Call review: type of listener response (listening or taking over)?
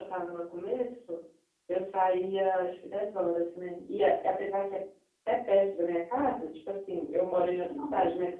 listening